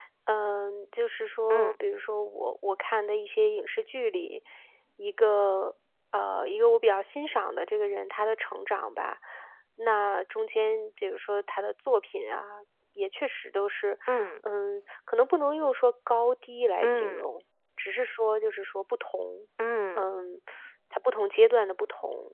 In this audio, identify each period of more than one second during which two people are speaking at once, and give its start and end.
none

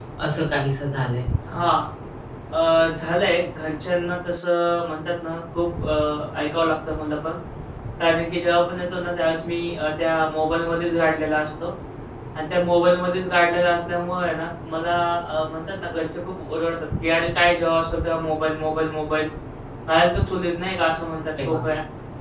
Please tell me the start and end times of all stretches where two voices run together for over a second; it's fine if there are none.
none

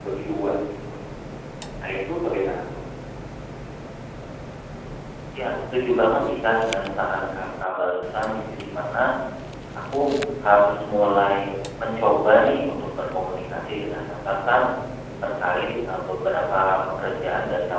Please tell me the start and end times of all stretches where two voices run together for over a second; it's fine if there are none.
none

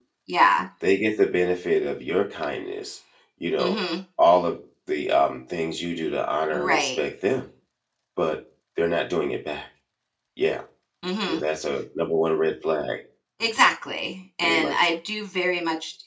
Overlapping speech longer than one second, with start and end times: none

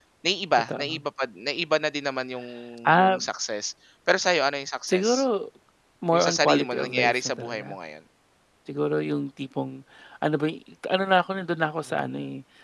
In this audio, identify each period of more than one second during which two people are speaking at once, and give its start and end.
6.1-7.8

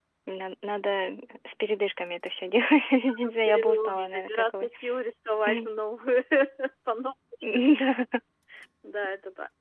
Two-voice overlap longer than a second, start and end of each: 3.3-4.7

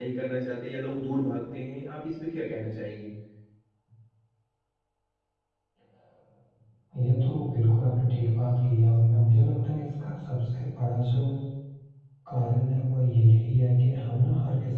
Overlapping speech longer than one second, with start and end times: none

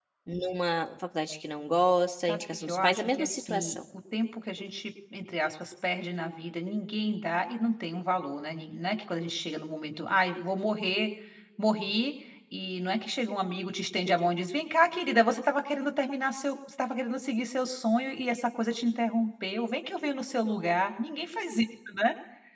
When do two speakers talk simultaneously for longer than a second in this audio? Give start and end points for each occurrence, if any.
2.3-3.8

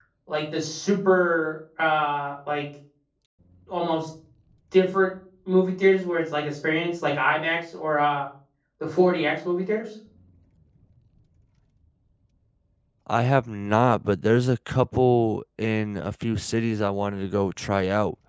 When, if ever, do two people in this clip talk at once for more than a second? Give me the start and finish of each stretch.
none

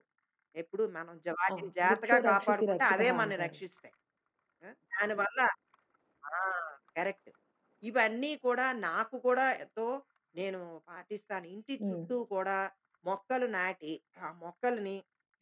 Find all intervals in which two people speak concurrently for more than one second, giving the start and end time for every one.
1.6-3.5

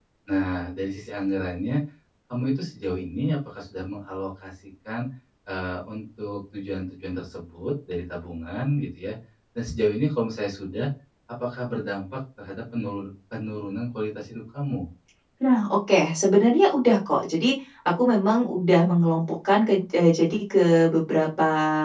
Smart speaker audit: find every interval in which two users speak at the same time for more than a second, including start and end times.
none

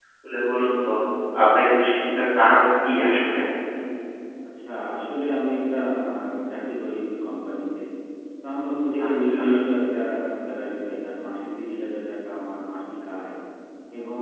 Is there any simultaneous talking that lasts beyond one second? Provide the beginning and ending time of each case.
none

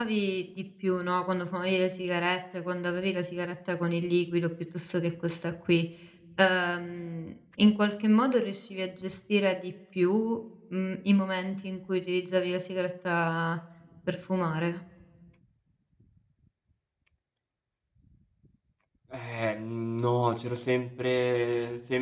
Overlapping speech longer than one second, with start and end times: none

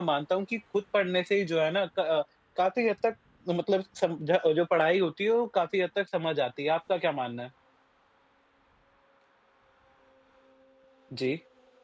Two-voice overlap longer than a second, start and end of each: none

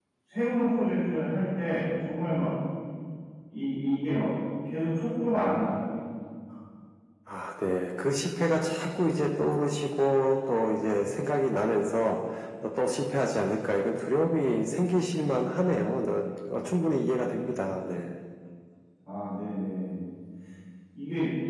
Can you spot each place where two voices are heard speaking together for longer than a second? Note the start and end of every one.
none

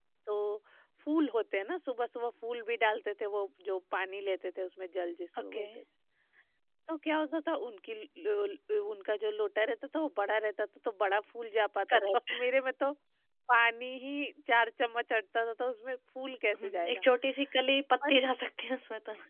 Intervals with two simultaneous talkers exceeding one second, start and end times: none

